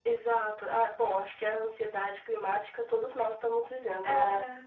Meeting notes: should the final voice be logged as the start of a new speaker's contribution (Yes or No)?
No